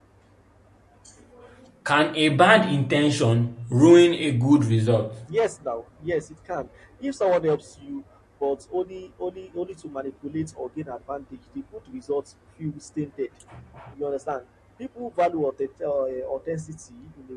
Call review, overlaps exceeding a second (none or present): none